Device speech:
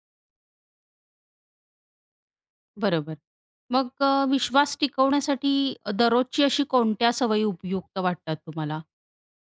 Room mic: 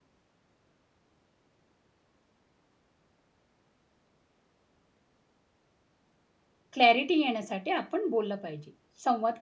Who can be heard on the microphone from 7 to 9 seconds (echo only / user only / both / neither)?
user only